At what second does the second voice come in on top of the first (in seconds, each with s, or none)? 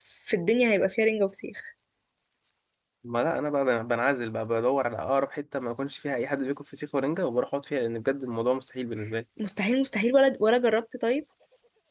none